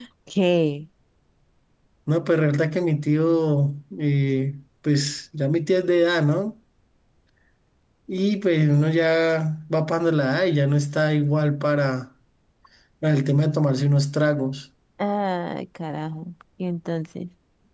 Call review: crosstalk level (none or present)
none